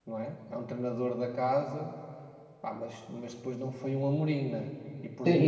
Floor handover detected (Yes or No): Yes